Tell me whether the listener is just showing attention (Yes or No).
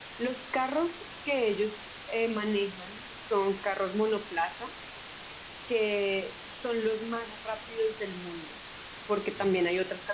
Yes